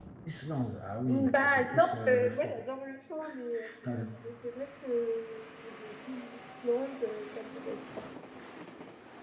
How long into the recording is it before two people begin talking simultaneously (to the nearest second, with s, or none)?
1 s